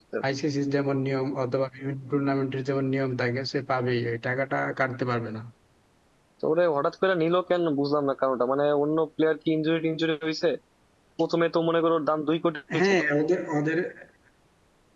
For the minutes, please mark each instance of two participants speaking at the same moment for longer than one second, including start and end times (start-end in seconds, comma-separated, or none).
none